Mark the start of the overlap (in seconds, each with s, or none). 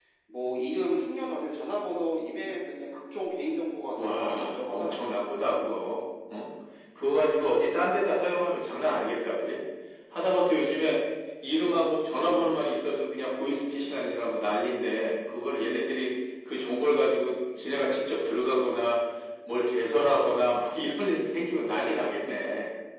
4.0 s